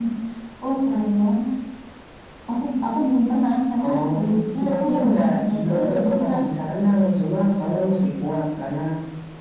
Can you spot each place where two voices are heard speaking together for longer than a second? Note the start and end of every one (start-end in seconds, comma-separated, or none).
4.6-6.3